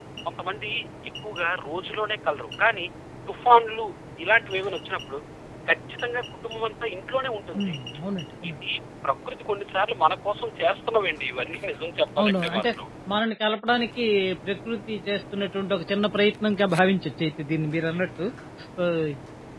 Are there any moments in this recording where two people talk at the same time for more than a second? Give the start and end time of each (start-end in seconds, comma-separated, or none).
none